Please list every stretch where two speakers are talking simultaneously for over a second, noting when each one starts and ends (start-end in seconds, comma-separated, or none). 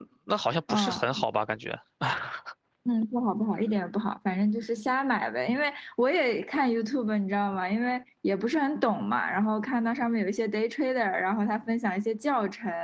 none